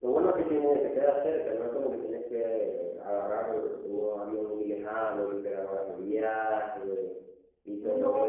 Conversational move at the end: taking over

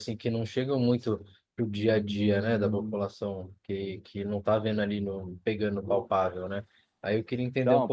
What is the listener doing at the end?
listening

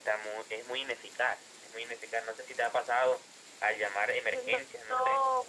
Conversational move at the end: taking over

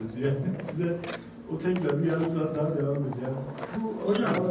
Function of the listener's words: listening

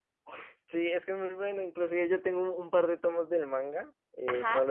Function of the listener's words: listening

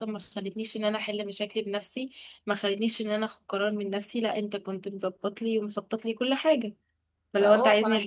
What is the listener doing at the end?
taking over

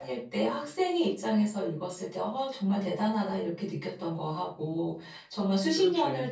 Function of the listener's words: listening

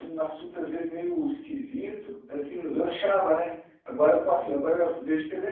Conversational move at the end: listening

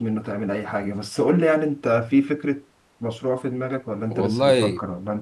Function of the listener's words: taking over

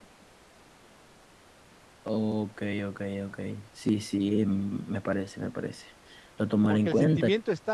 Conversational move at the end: taking over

